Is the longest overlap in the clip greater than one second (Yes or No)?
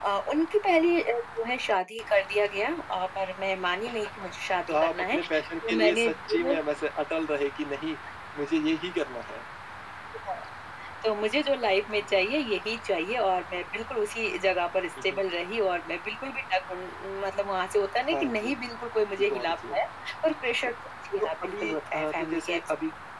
Yes